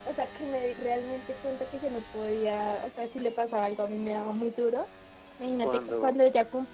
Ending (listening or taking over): listening